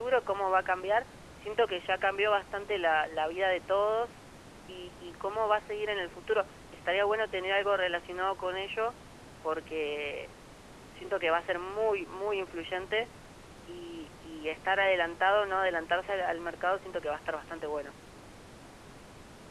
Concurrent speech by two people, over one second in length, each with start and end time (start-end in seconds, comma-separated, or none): none